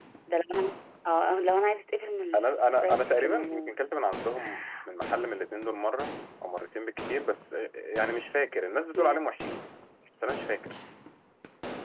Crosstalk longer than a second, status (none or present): present